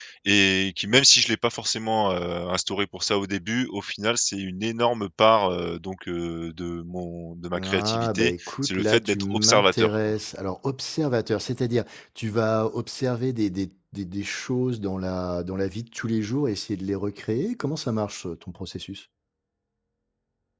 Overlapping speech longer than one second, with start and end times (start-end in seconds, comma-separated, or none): 7.6-9.9